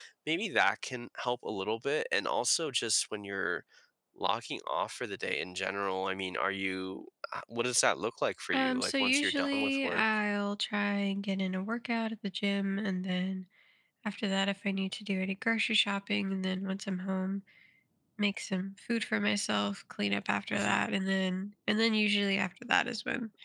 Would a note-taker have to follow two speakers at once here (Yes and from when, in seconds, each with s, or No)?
Yes, from 8.5 s